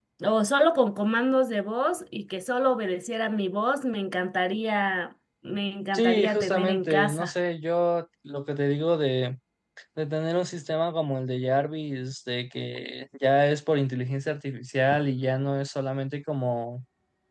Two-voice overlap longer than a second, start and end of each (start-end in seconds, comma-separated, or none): 5.9-7.3